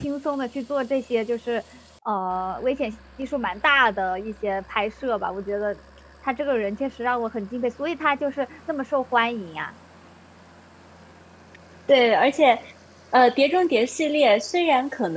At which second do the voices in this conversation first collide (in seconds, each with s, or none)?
none